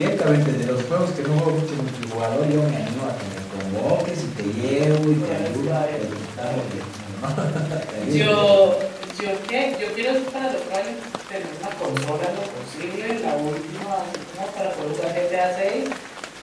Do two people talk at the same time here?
Yes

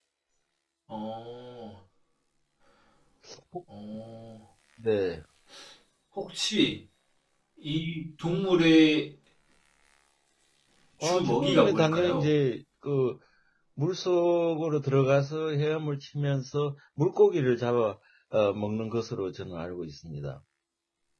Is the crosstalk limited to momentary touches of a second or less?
No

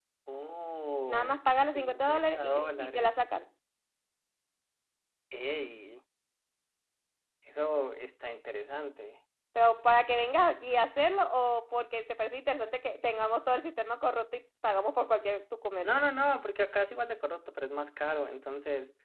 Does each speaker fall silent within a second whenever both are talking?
No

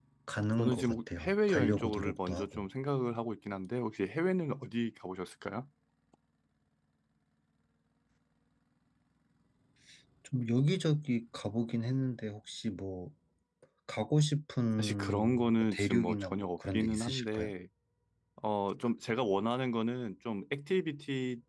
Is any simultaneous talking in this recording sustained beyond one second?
Yes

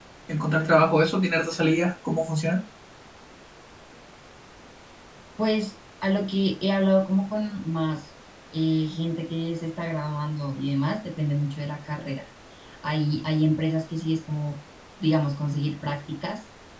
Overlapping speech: No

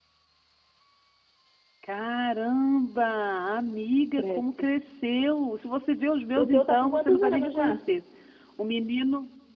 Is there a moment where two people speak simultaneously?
Yes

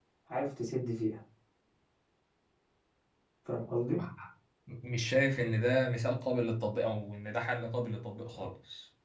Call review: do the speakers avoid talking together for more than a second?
Yes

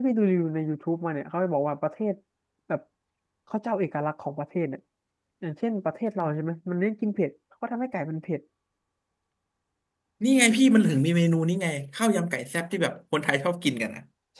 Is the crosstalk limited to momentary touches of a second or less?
Yes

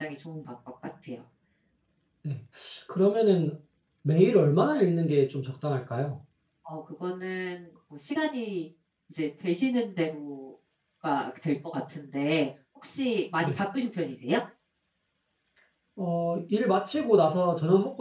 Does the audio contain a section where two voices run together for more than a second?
No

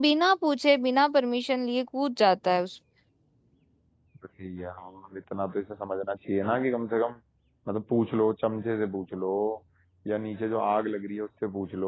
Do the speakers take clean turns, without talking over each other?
Yes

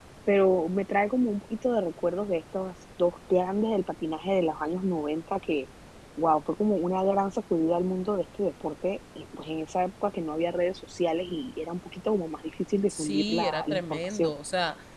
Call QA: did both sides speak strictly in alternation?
No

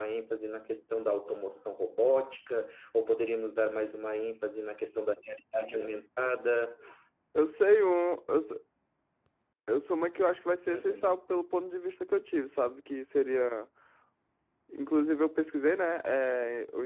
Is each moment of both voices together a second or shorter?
Yes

